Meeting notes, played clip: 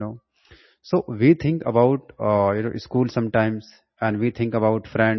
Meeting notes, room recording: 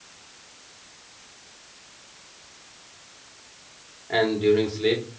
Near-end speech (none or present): present